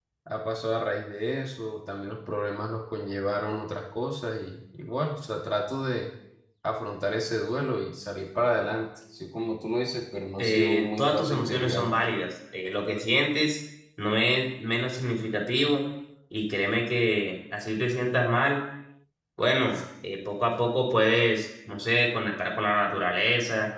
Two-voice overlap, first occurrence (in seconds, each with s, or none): 10.4 s